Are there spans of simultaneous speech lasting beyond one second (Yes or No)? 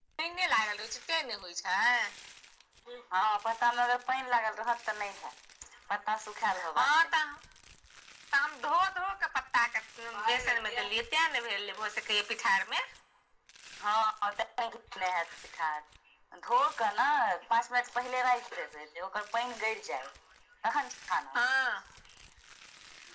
No